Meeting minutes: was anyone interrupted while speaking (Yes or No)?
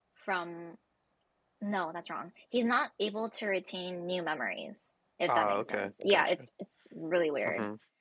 Yes